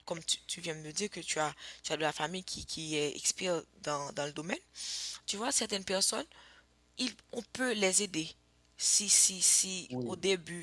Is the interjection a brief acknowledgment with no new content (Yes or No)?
Yes